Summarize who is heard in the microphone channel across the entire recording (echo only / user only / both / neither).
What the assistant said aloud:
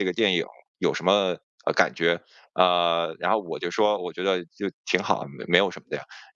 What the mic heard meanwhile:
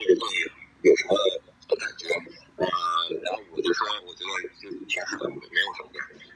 echo only